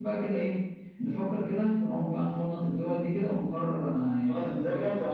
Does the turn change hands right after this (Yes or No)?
Yes